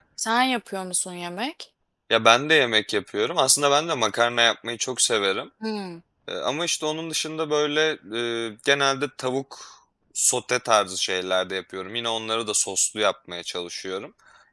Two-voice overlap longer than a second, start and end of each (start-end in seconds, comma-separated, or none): none